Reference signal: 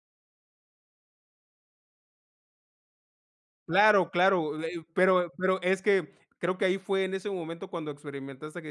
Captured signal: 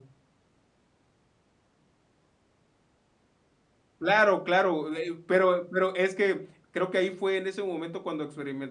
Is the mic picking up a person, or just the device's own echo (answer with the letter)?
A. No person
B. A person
A